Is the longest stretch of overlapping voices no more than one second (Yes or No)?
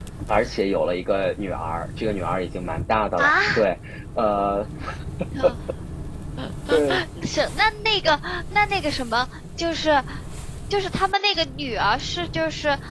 Yes